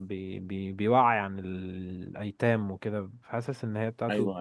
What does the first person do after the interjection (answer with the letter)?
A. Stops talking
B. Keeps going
B